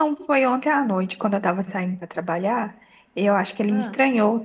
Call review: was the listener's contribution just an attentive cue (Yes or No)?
Yes